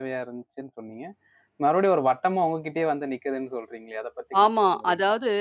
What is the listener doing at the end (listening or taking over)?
taking over